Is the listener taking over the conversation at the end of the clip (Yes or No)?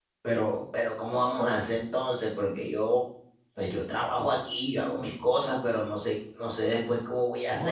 Yes